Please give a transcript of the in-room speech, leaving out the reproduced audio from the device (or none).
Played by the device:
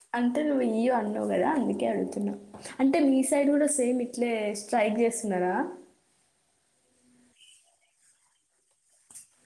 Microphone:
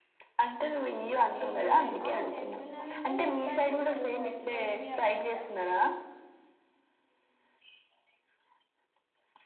ఏం లే ఆ చేస్తున్నానండి బట్ ఇప్పుడు అయిపోయింది అనుకుంటా